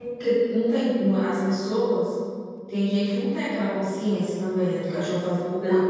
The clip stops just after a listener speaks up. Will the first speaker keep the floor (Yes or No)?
Yes